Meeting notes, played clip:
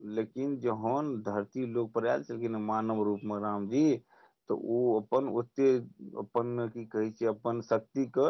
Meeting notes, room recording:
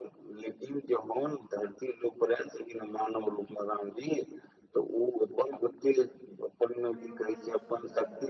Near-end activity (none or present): present